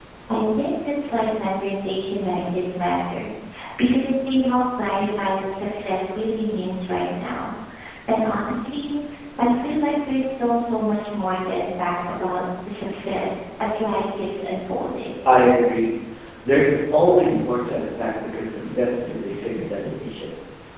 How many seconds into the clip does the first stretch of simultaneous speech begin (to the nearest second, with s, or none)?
none